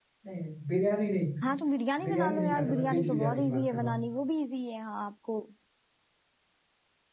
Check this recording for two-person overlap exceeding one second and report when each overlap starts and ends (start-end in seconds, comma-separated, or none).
2.0-4.0